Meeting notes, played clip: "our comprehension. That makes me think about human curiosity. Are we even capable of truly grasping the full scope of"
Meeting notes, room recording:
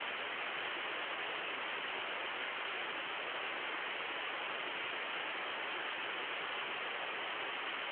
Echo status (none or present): none